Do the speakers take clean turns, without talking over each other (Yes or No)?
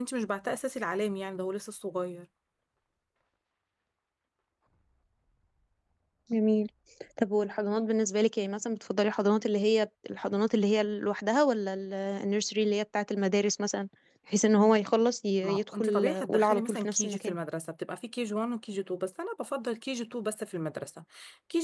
No